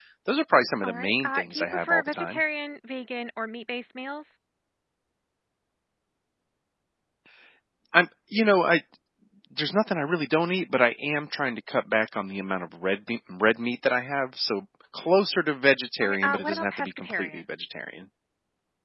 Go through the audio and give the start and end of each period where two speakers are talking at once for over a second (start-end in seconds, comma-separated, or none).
0.8-2.4, 16.0-17.4